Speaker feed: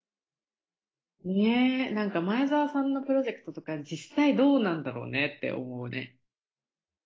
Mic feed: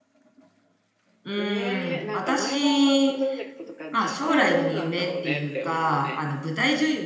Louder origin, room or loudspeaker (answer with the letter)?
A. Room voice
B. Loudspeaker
A